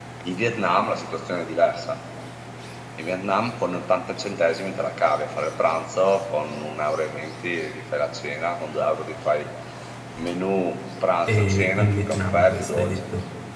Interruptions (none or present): present